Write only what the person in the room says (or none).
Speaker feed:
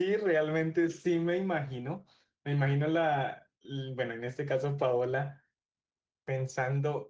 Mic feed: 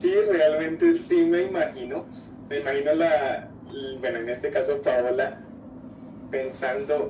none